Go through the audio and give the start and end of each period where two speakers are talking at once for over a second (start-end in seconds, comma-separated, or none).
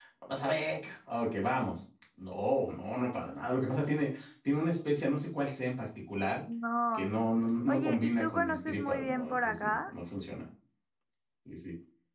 7.7-9.8